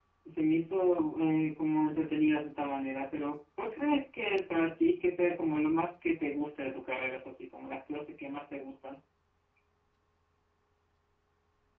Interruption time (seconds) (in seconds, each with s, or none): none